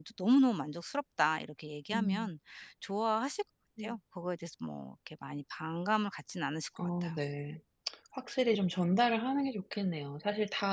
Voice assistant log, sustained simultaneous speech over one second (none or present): none